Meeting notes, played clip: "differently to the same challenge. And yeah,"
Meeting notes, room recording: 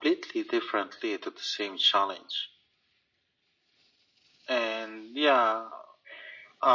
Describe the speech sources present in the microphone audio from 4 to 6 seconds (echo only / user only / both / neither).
echo only